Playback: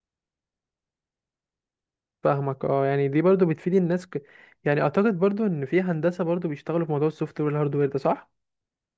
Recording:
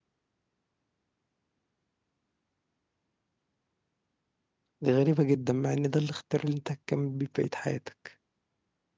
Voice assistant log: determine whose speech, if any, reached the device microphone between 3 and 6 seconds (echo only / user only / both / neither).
user only